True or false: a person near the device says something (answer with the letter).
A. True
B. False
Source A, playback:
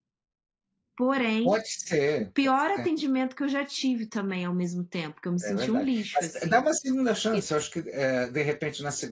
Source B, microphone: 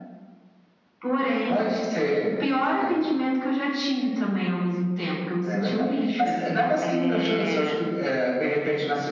A